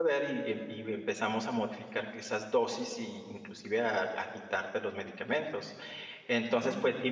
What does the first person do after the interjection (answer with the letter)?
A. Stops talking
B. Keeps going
B